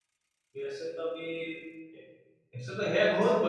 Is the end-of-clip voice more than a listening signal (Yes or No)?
No